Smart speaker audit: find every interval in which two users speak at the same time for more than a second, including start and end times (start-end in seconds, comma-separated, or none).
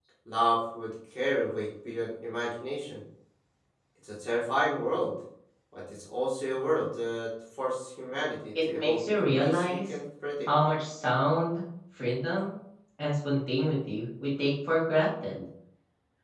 8.6-9.9